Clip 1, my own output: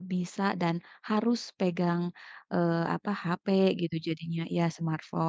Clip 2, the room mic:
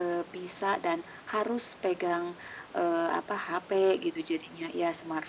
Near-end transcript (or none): none